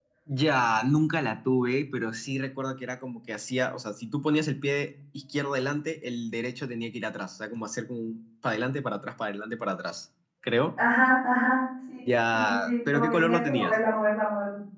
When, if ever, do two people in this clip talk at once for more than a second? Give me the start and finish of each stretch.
12.1-13.7

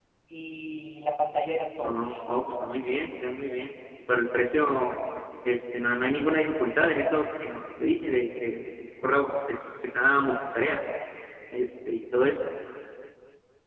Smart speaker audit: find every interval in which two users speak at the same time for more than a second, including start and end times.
none

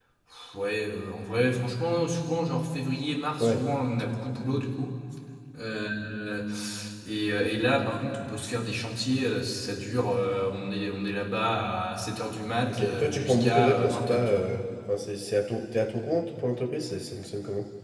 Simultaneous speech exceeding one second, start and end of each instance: 12.7-14.4

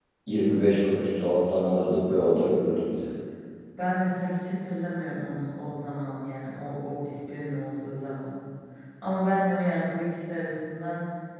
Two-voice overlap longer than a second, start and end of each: none

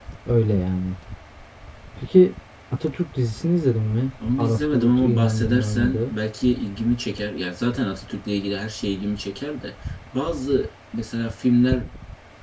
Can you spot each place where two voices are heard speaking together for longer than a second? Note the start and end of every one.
4.4-6.1

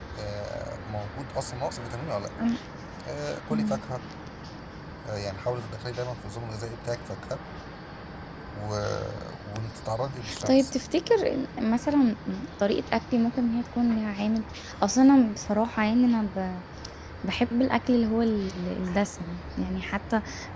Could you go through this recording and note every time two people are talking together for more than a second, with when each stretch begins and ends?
none

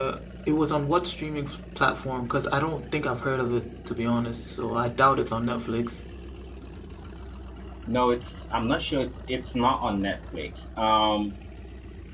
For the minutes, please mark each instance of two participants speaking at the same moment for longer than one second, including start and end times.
none

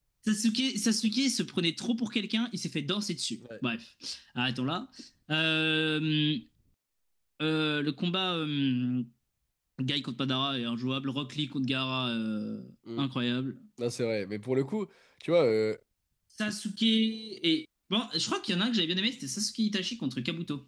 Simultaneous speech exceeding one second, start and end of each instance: none

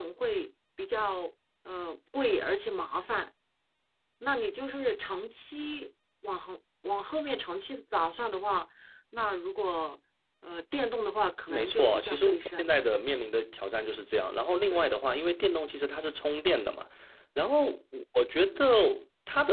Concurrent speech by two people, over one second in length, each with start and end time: 11.5-12.8

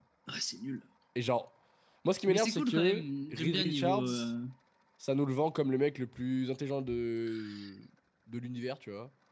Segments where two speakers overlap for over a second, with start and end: 2.3-4.0

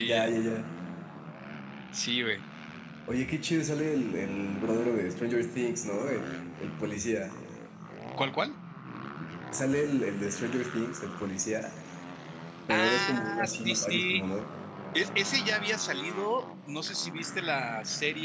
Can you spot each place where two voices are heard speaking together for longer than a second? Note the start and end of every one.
12.7-14.2

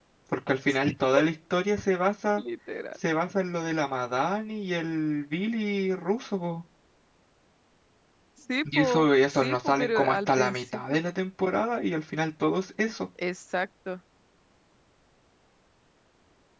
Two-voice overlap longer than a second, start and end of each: 8.7-11.0

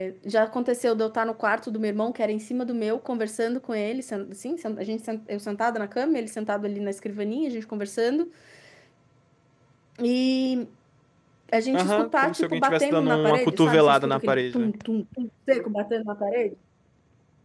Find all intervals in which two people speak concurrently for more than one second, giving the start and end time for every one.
11.7-14.7

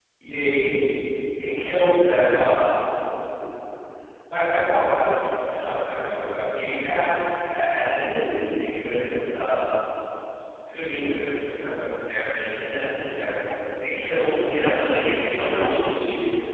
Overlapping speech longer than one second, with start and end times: 14.5-16.1

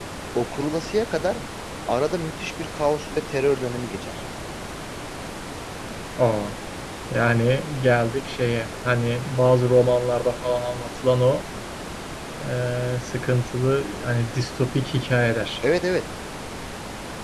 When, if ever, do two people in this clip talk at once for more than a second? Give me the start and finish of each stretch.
none

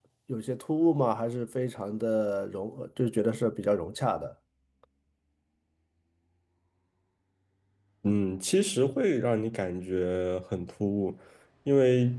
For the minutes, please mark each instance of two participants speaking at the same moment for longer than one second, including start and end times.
none

